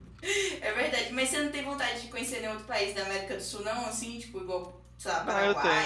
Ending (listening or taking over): taking over